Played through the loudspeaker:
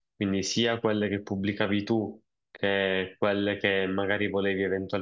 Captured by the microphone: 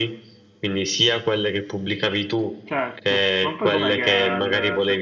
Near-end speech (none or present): present